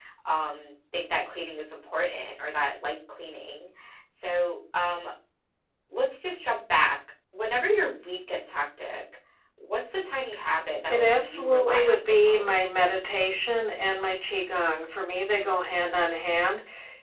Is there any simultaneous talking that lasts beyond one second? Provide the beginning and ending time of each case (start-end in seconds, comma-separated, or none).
10.9-12.9